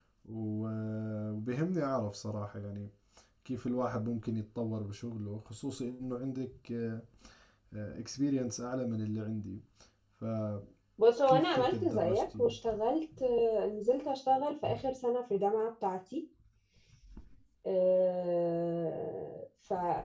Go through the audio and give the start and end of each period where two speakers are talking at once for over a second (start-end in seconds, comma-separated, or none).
11.3-12.5